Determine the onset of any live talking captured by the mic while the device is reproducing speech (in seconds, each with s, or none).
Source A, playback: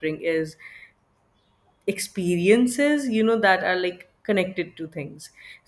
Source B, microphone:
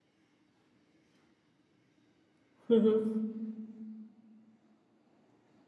2.7 s